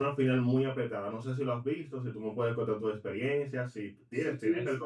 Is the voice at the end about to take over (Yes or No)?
Yes